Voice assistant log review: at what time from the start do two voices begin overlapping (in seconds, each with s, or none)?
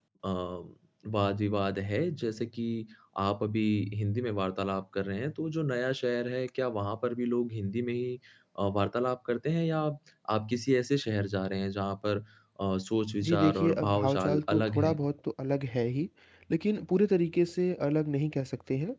13.2 s